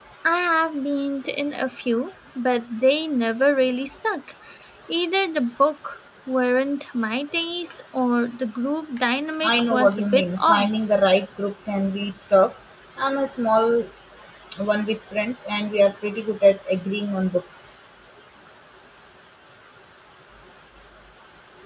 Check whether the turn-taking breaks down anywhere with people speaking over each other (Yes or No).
Yes